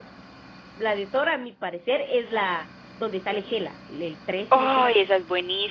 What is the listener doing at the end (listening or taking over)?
taking over